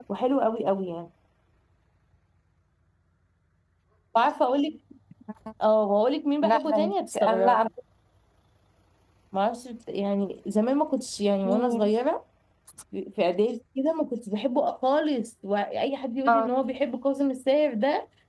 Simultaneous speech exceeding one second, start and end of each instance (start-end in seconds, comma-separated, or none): 6.4-7.7